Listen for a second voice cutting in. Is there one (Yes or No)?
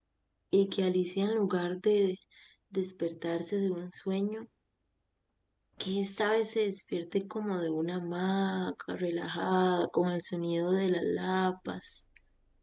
No